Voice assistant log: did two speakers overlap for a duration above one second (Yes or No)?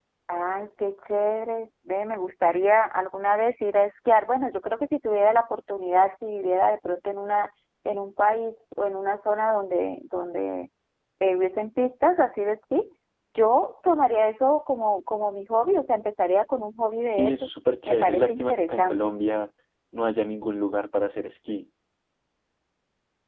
Yes